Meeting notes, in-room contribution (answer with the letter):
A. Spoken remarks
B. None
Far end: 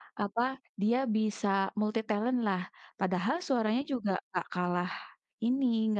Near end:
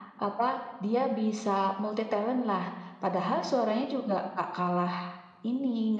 B